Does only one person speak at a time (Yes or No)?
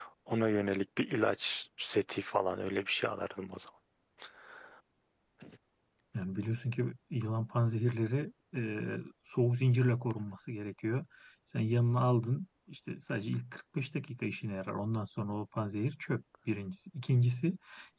Yes